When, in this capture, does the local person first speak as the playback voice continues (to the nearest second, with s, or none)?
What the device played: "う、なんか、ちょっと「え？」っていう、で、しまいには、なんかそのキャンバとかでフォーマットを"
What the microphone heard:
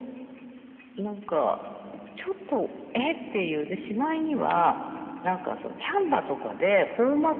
none